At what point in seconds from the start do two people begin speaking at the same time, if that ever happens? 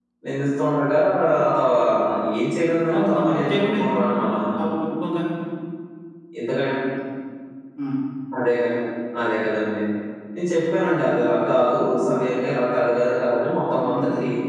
2.9 s

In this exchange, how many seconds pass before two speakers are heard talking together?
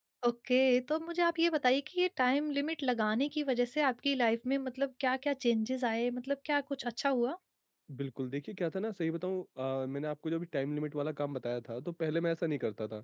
none

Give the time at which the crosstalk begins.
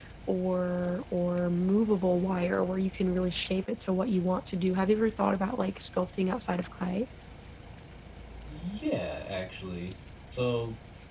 none

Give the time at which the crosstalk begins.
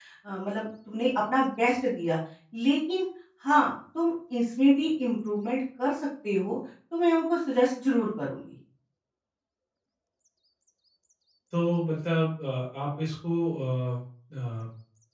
none

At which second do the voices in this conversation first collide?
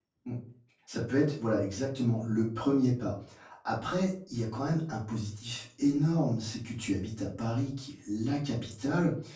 none

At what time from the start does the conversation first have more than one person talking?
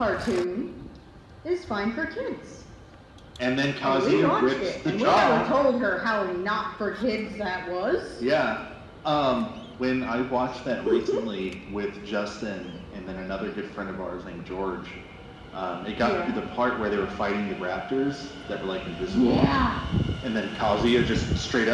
3.8 s

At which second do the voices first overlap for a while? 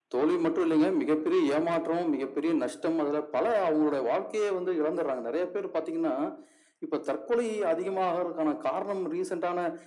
none

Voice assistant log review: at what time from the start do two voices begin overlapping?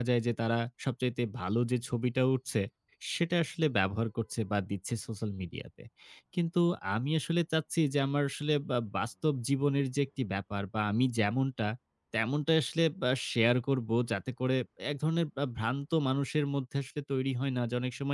none

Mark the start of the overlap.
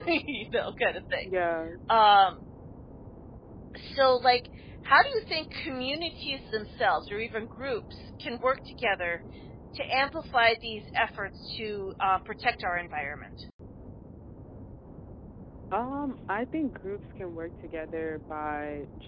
none

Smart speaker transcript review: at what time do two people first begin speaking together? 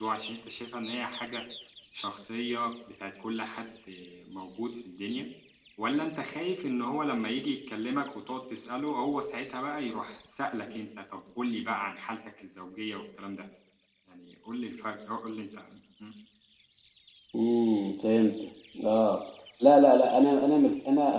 none

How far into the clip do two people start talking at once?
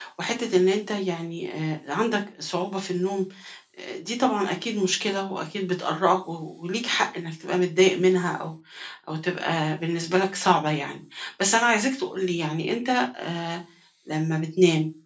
none

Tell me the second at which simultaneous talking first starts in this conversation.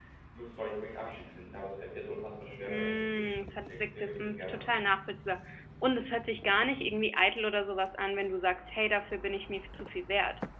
2.6 s

